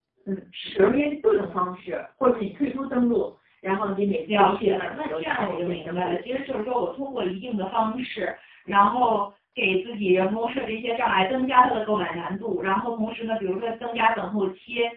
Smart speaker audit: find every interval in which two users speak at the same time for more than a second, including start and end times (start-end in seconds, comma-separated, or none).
4.3-6.2